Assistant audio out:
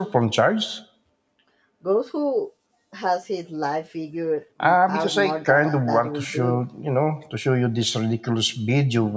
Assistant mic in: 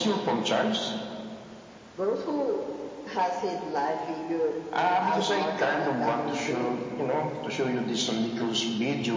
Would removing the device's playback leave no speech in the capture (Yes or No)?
Yes